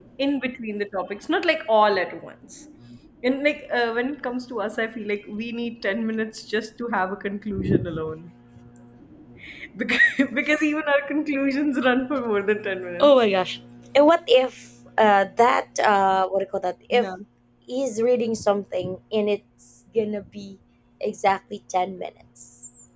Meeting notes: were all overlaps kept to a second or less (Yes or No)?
Yes